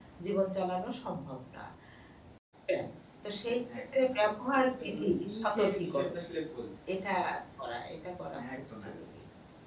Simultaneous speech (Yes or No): Yes